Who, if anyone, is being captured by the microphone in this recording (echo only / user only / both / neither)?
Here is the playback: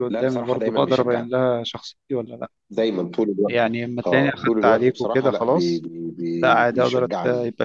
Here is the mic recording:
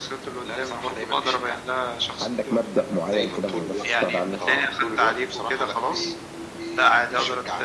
both